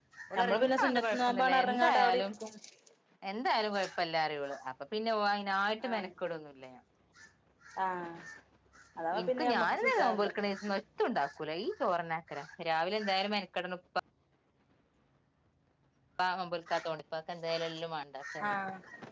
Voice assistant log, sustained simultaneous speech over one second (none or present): present